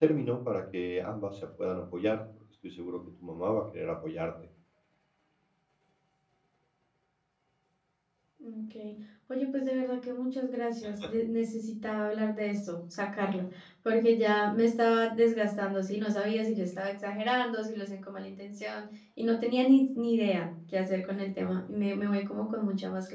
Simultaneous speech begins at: none

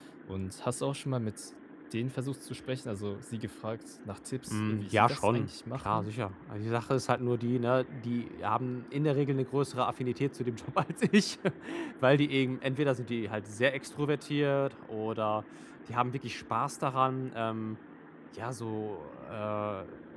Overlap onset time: 4.5 s

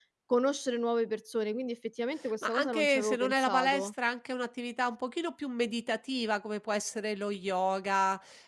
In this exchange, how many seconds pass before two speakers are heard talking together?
2.2 s

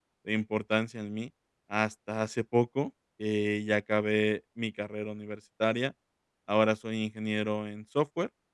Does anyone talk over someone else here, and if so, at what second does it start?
none

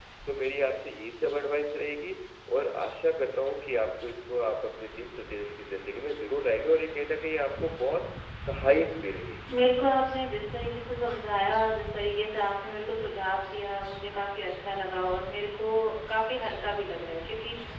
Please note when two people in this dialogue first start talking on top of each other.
none

